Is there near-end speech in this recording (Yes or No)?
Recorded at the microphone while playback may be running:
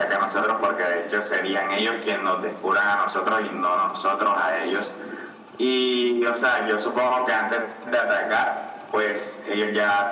No